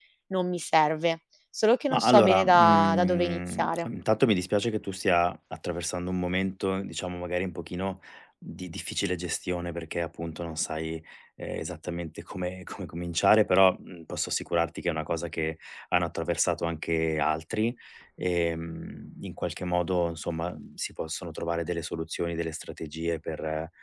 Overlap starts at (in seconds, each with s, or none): 1.9 s